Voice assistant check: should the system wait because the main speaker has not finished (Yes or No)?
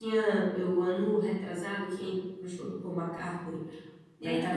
Yes